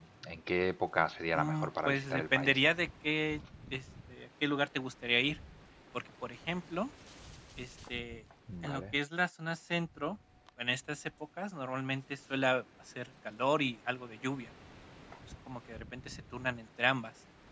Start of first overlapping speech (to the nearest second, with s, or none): 1 s